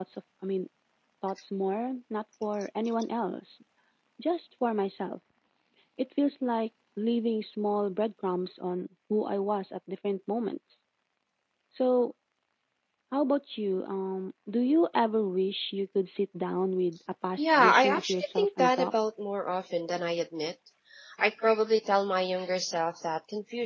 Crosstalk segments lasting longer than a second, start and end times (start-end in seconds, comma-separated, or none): 17.4-18.9